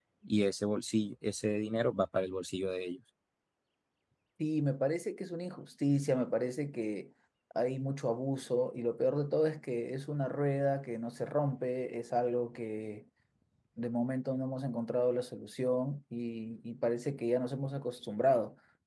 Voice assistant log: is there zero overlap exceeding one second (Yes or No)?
Yes